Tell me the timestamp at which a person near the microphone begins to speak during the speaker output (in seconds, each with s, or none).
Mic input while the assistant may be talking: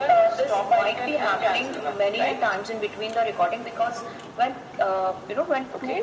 none